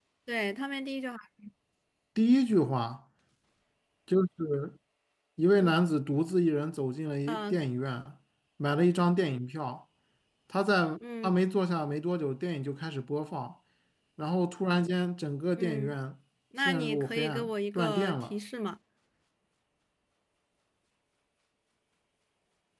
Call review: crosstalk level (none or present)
present